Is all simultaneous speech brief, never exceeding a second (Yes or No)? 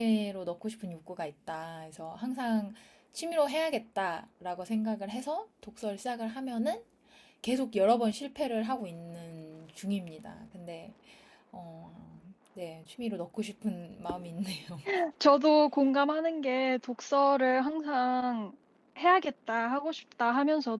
Yes